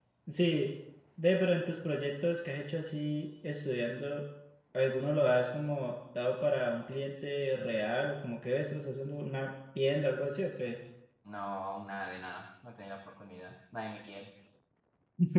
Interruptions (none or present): none